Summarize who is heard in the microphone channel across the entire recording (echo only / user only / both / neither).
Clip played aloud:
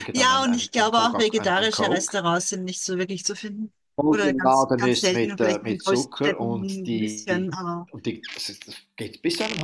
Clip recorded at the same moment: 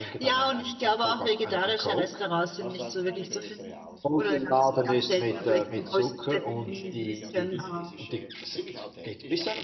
both